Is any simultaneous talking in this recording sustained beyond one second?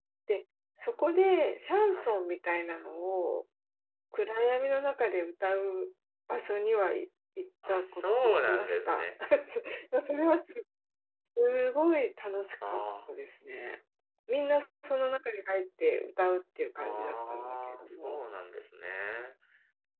Yes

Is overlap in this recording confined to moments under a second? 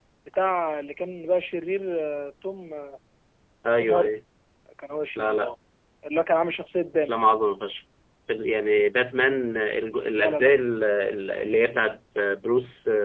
Yes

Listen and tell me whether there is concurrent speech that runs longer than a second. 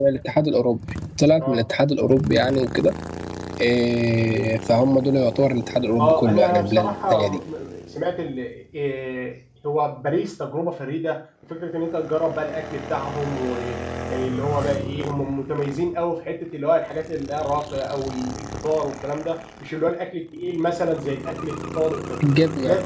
Yes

